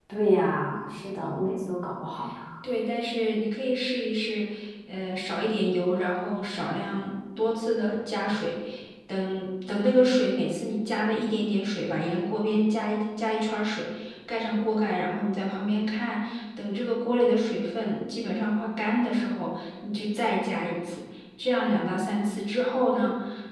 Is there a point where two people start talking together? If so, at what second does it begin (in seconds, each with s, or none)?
none